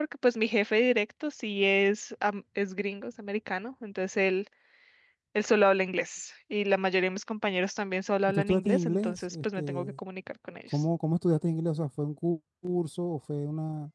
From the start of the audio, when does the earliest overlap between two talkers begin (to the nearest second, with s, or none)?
8 s